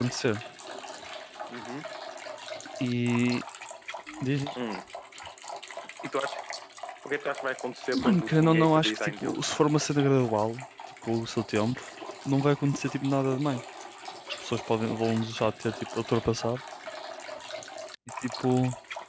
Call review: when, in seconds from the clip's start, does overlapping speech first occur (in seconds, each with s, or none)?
7.9 s